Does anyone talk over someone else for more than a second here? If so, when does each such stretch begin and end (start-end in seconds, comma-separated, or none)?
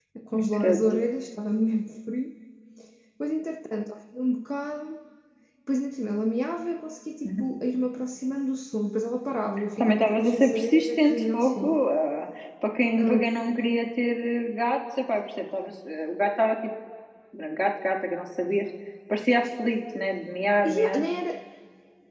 9.8-11.8